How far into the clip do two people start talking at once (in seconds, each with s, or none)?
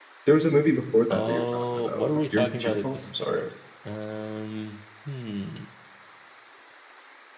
1.1 s